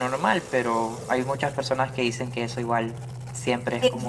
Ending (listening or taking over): taking over